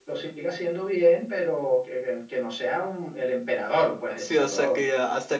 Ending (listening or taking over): taking over